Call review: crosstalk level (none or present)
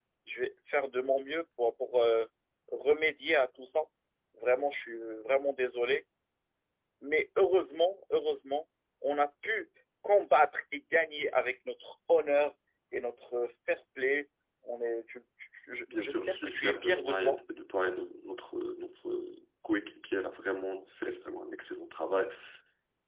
present